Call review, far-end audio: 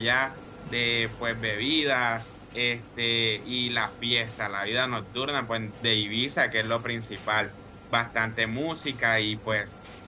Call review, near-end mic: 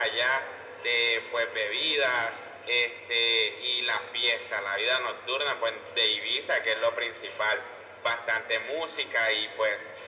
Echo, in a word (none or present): present